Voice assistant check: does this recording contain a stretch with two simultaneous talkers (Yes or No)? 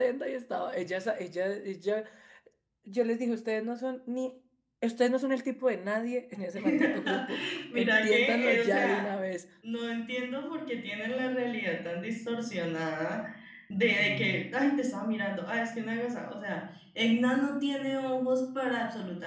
Yes